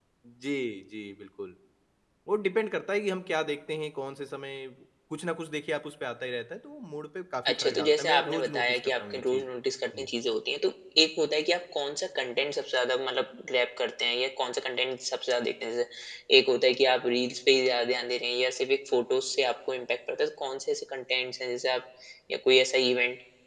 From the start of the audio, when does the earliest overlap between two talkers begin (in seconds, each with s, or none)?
7.5 s